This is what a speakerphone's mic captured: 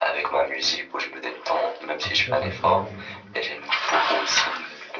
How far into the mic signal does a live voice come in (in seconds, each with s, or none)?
2.0 s